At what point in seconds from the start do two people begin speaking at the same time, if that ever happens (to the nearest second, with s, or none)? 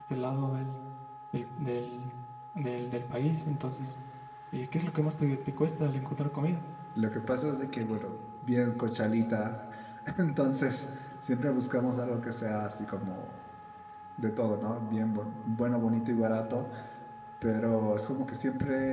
none